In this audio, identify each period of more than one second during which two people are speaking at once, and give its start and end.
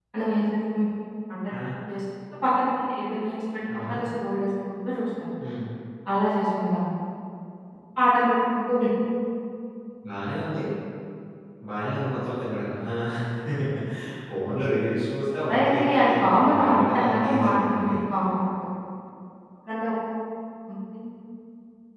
15.5-17.9

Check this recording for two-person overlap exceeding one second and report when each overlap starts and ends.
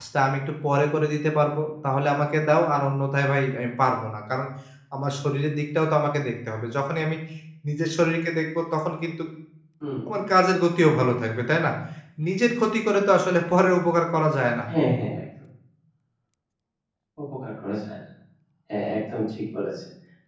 none

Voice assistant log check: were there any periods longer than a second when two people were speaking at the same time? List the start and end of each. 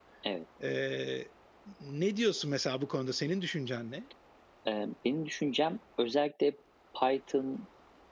none

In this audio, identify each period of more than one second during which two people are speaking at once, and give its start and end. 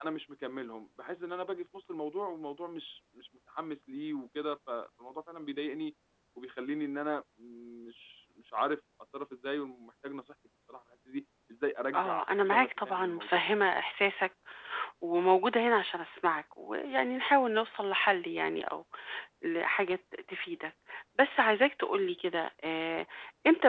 12.0-13.4

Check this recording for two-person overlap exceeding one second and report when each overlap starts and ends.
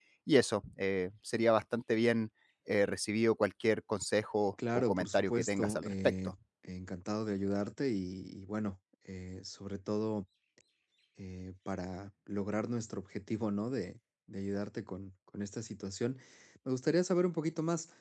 4.7-6.1

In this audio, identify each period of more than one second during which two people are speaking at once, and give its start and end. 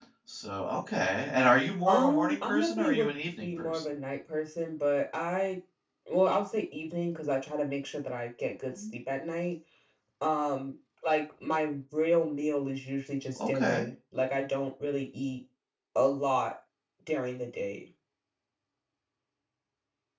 1.9-3.8

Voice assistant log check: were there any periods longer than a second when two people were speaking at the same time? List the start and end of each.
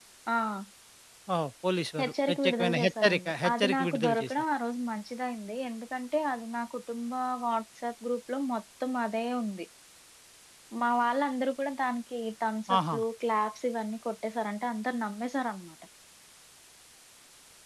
2.0-4.3

